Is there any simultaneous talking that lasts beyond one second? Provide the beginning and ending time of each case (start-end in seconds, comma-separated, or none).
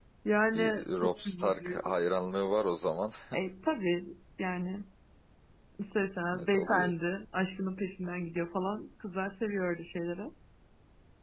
0.5-1.9